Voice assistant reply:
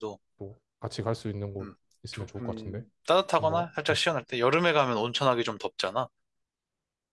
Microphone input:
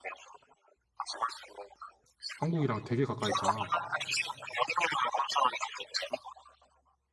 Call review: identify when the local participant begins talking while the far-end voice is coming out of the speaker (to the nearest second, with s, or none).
2 s